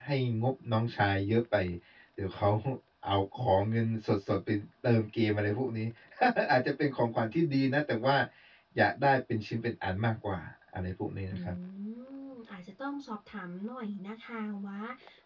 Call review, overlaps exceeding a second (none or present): none